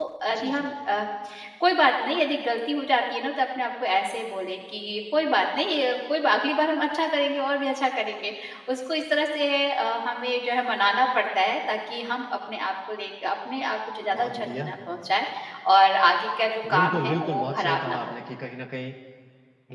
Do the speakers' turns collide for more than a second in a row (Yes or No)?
Yes